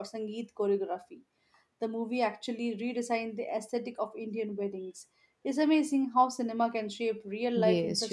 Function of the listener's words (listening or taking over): taking over